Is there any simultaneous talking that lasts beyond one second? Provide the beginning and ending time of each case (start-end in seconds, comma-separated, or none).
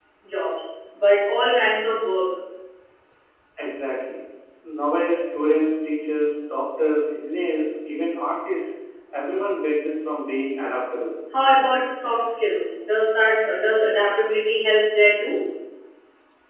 none